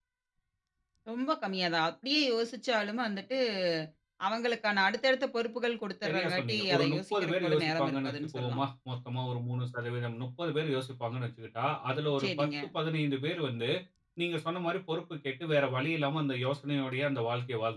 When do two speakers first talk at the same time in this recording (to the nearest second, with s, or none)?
6 s